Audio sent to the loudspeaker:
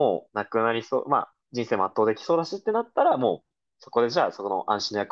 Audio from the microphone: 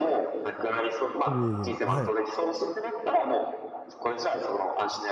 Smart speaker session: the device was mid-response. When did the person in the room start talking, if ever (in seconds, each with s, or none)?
1.3 s